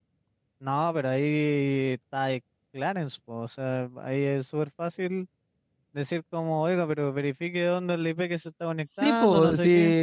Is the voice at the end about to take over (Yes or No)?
Yes